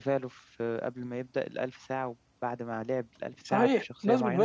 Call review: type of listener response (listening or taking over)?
taking over